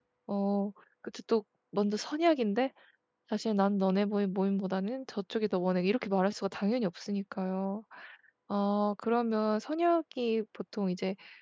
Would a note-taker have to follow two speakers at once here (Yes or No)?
No